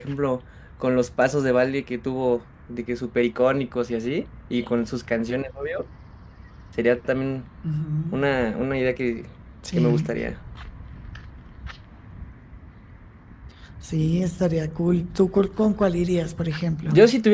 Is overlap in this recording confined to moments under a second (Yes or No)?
Yes